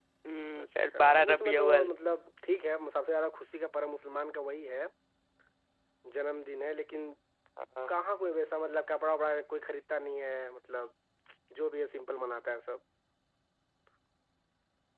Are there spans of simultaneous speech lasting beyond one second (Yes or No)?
Yes